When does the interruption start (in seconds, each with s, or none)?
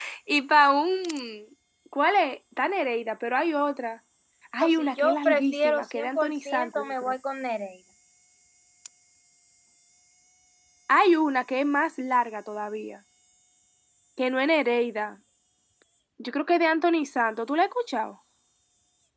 4.6 s